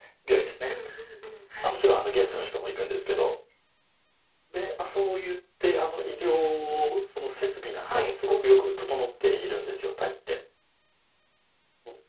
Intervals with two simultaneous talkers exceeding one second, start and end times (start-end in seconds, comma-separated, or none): 7.9-9.1